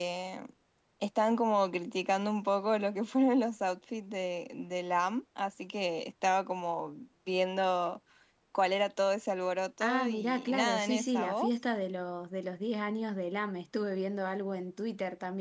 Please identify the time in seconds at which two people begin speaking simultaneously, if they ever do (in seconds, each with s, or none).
9.8 s